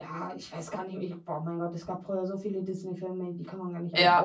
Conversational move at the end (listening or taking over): taking over